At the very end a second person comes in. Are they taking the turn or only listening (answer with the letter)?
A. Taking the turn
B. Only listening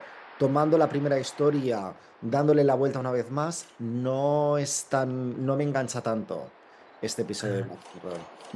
B